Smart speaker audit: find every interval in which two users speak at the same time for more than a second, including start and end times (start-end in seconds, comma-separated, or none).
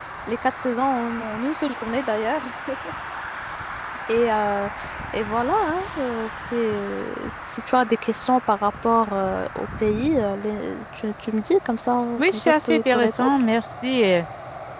12.2-13.4